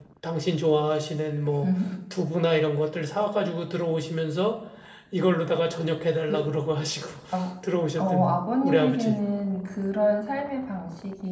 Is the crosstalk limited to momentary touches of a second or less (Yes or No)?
No